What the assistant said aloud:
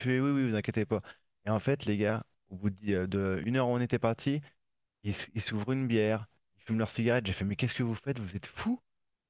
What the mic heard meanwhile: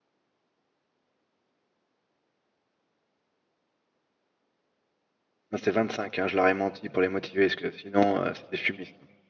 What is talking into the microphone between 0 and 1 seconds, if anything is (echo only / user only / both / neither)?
neither